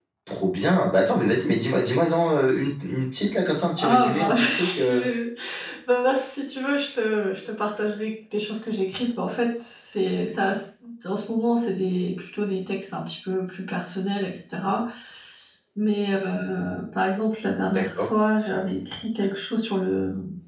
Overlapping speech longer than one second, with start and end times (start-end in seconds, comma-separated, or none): 3.8-5.0